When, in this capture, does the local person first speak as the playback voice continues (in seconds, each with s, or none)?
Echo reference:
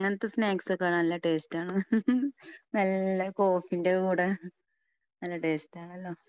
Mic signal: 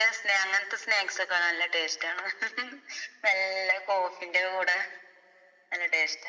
none